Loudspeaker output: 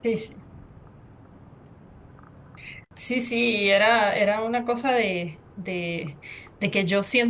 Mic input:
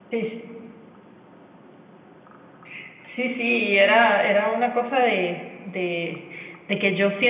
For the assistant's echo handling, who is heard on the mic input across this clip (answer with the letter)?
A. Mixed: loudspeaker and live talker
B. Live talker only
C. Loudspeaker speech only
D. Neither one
C